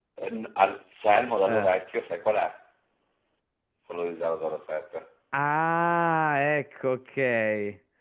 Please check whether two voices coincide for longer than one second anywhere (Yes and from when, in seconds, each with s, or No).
No